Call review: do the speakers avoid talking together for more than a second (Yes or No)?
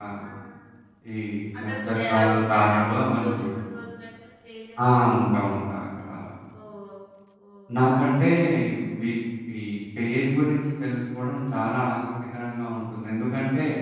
No